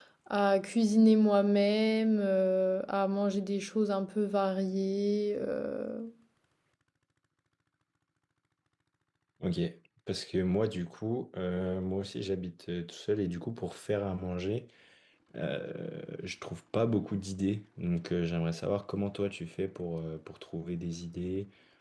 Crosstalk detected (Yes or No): No